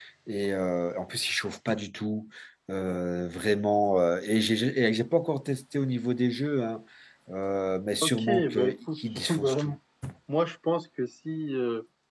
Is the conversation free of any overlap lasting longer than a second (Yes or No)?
No